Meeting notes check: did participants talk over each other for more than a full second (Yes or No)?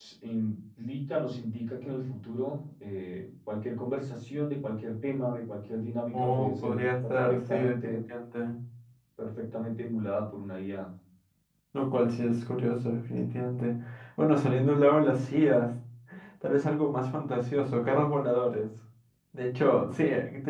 Yes